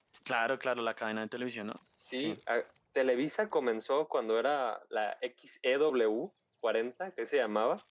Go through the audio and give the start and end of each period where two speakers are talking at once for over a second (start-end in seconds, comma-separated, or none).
none